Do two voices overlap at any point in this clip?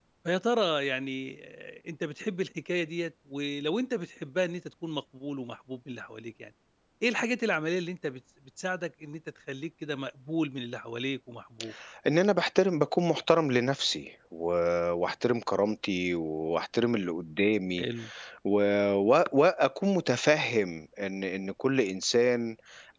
No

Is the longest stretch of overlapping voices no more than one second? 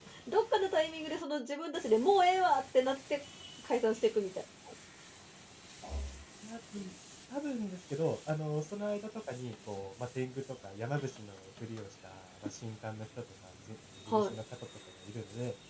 Yes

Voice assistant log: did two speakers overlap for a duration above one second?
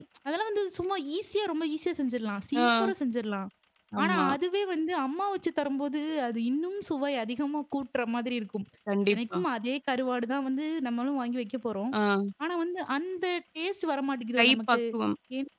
No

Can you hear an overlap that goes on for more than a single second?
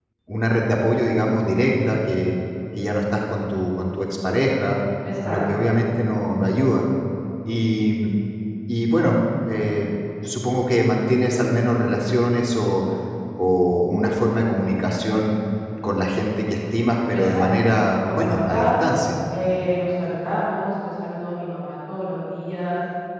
Yes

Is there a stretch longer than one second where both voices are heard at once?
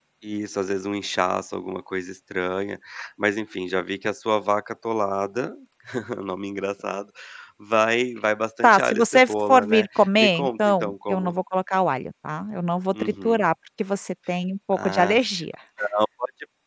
Yes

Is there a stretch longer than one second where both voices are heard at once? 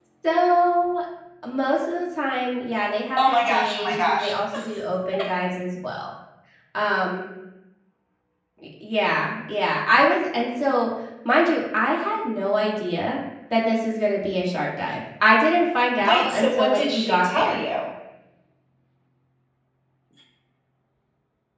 Yes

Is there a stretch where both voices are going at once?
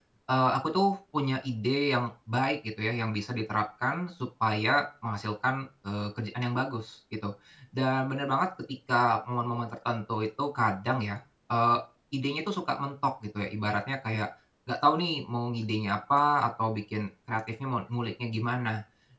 No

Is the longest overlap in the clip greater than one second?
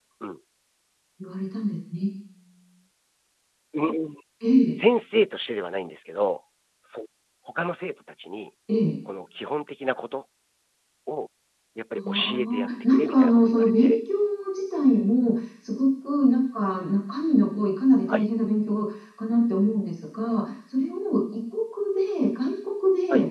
Yes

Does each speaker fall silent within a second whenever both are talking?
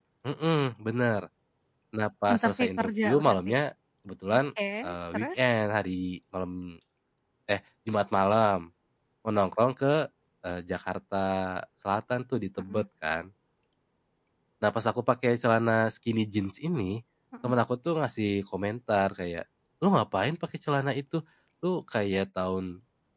No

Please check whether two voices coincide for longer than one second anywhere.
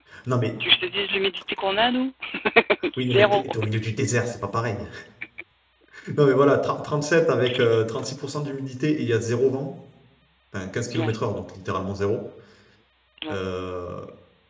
No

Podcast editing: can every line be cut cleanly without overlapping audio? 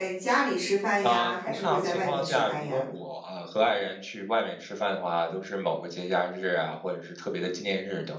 No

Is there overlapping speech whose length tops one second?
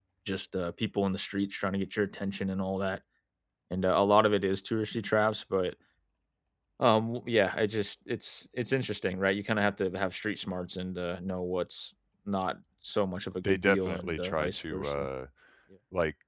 Yes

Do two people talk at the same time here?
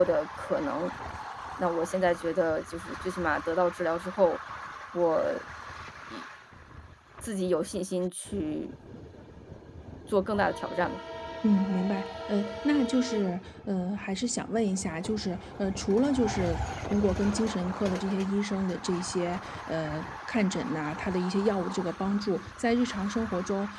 No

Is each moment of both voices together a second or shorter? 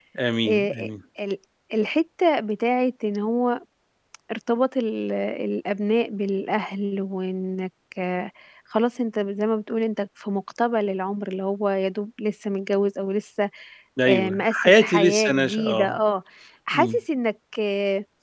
No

